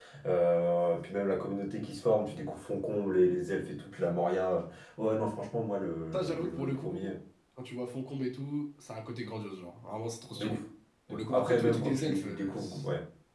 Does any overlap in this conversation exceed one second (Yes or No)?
Yes